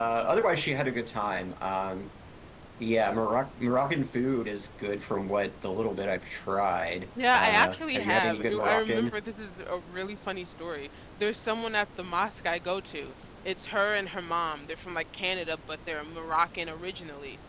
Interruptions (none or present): present